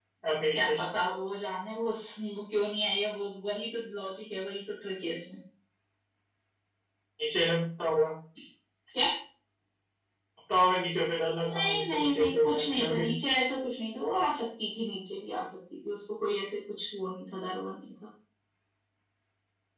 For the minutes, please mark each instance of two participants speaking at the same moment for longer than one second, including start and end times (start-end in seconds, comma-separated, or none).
11.4-13.0